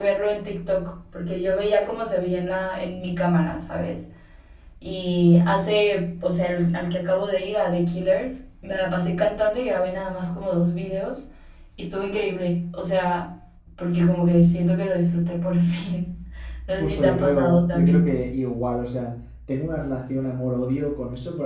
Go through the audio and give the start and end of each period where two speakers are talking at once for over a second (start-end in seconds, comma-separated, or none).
16.8-18.3